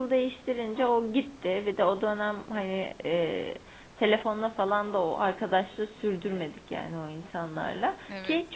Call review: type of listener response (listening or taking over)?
listening